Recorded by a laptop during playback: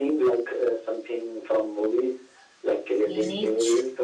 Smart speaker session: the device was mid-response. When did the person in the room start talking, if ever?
3.1 s

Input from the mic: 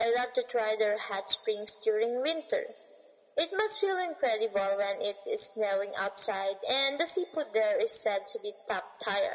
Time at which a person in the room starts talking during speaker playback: none

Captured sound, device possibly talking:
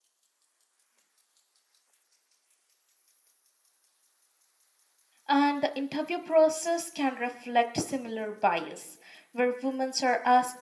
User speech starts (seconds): 5.3 s

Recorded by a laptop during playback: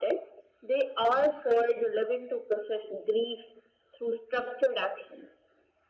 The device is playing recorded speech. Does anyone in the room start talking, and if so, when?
none

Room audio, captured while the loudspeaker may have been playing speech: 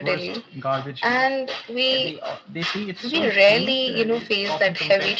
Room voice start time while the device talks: none

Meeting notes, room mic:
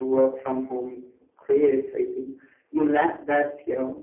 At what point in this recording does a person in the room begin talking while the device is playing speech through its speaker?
none

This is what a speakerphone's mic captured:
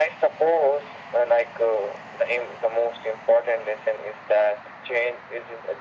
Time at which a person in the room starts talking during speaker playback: none

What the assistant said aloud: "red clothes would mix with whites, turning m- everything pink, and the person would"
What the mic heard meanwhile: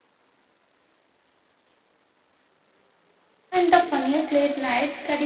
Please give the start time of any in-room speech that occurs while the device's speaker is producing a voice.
3.5 s

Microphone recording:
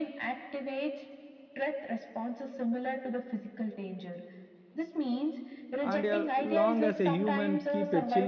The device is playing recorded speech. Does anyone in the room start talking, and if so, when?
5.8 s

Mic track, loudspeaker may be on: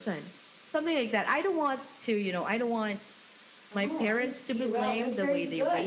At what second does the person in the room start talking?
3.7 s

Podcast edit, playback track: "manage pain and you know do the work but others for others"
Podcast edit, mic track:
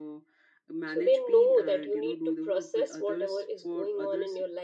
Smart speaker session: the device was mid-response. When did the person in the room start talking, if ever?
0.8 s

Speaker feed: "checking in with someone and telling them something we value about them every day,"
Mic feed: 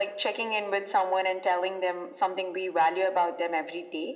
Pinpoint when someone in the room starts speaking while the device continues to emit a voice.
none

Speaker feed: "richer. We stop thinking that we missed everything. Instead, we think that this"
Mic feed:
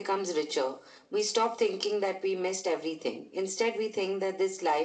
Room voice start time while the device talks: none

